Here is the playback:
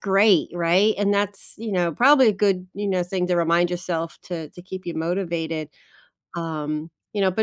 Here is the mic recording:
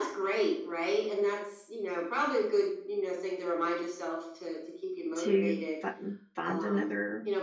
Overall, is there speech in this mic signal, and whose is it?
both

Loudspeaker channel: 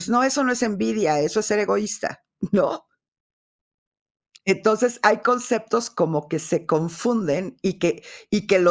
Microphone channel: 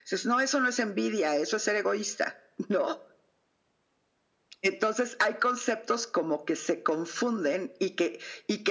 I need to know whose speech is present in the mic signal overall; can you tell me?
echo only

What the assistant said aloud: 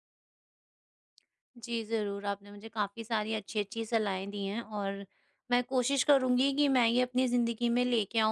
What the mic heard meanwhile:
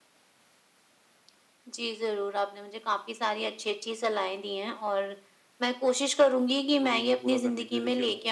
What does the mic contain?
both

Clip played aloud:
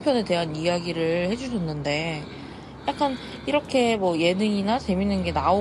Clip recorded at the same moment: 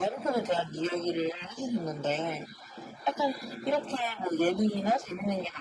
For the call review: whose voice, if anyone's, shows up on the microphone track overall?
echo only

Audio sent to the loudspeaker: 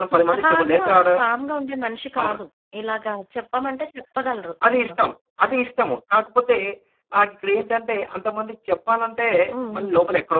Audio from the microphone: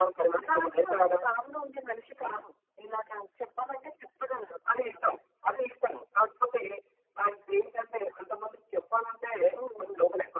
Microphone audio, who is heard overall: echo only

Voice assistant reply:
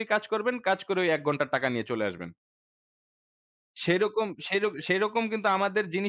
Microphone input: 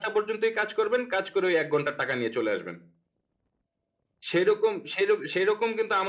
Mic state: echo only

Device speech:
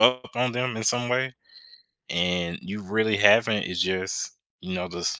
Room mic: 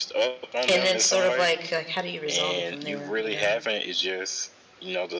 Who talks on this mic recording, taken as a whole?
both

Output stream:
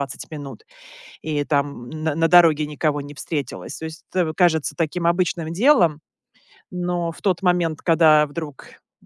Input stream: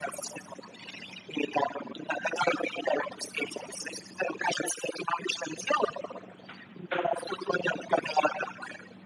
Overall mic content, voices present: echo only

